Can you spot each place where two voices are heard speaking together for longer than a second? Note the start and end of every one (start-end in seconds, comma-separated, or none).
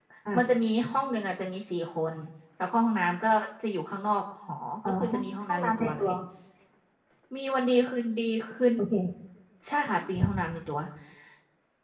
4.8-6.1